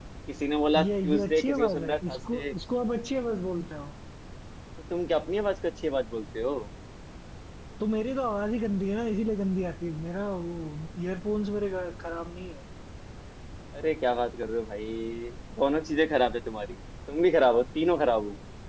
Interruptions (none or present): present